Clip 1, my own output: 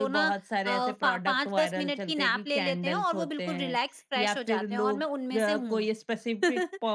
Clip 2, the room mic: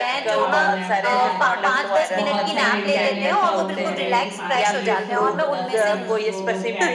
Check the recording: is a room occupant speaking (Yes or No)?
Yes